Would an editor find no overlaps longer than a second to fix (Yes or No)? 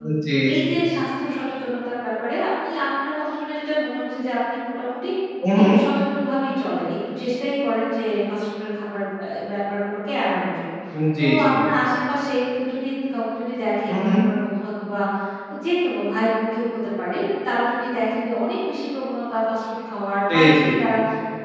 Yes